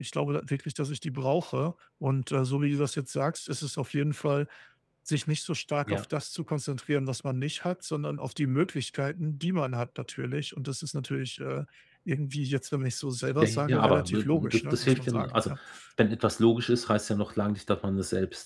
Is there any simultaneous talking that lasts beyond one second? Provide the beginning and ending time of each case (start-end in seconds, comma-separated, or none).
13.4-15.5